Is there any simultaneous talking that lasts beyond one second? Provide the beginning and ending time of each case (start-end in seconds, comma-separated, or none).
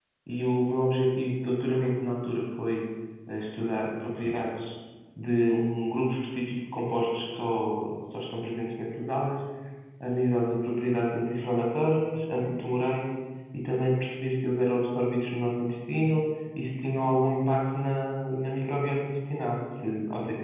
none